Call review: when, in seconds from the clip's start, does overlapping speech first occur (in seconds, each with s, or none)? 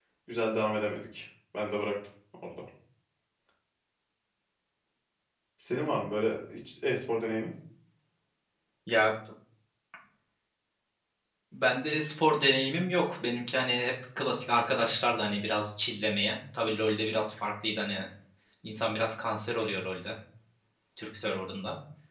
none